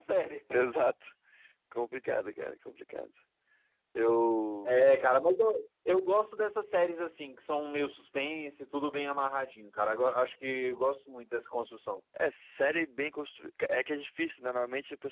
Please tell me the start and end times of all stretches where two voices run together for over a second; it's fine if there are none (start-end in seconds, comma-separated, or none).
none